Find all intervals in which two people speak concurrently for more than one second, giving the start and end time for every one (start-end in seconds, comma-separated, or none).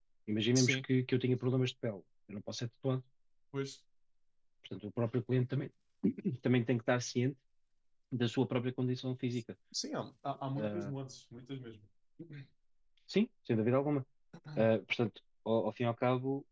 none